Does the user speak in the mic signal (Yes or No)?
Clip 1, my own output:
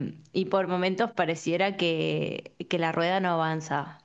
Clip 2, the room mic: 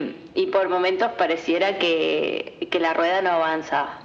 No